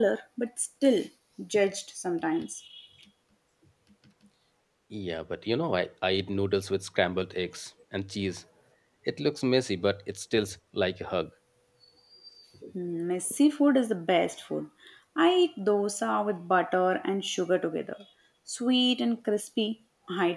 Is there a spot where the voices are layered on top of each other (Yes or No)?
No